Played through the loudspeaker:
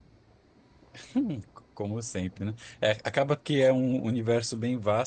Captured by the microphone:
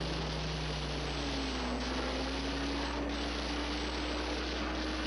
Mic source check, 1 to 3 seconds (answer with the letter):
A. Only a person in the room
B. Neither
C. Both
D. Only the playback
B